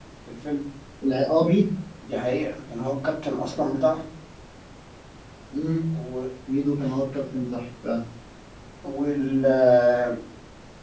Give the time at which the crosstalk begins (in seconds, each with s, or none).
none